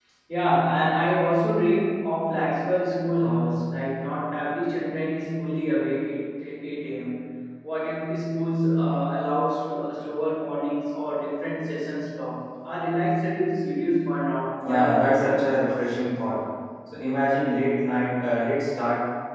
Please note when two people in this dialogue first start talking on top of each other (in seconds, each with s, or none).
14.6 s